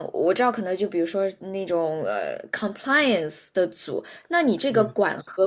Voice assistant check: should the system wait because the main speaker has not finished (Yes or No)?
Yes